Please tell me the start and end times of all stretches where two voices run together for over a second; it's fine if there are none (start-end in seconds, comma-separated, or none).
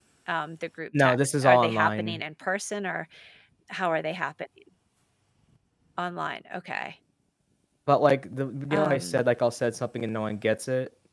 1.0-2.2